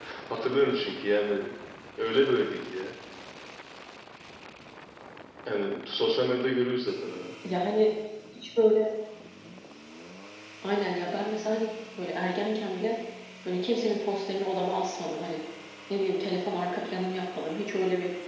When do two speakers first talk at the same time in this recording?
none

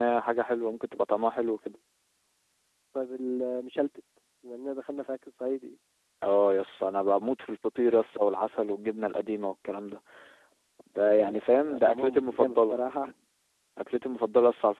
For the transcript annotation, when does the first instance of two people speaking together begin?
11.2 s

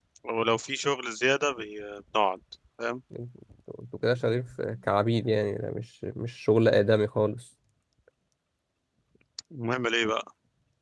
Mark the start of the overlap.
none

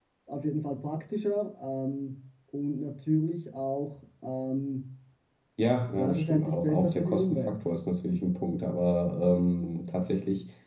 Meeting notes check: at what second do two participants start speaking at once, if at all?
6.0 s

